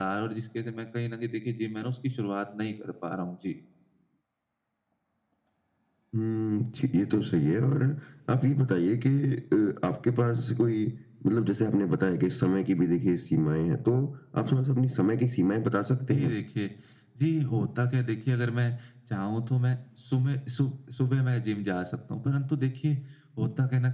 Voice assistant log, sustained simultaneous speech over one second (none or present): none